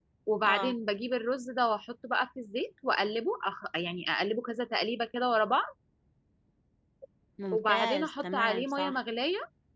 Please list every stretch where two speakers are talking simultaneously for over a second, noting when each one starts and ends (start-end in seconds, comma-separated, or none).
7.5-9.0